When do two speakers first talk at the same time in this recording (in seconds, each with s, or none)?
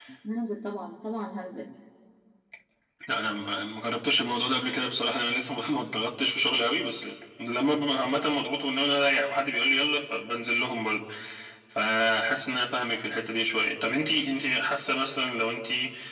none